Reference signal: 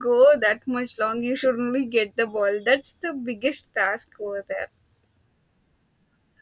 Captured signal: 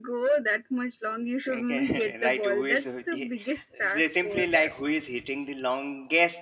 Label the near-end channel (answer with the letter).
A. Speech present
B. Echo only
A